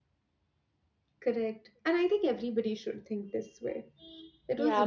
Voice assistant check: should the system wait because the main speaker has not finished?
No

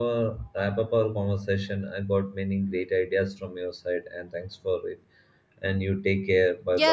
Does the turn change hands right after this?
Yes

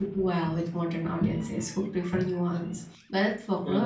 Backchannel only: Yes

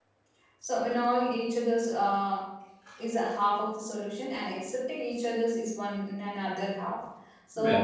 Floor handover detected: No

